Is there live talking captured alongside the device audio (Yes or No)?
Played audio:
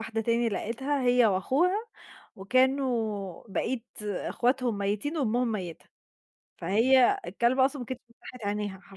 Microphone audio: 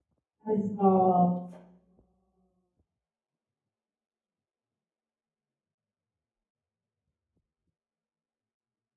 Yes